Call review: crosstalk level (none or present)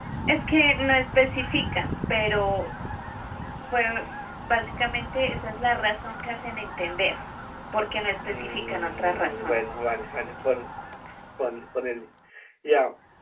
present